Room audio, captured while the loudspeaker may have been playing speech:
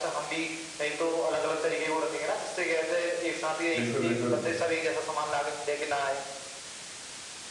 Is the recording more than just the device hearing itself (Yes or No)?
Yes